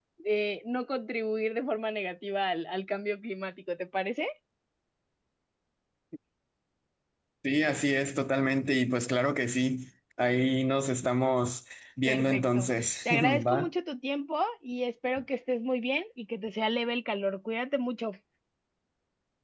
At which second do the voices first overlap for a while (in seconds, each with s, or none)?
12.1 s